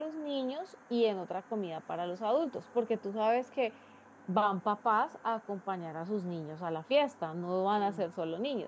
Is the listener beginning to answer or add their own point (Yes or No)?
No